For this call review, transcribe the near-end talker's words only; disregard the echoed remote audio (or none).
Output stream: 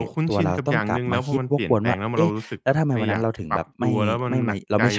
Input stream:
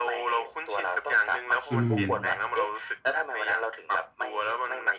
อืม